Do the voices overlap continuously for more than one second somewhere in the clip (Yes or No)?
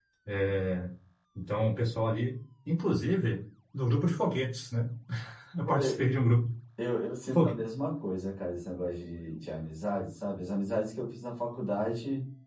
No